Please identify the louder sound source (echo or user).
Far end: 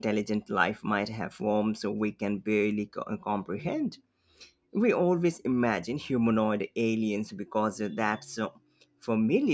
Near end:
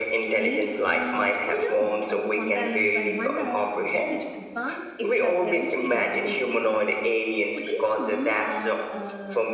echo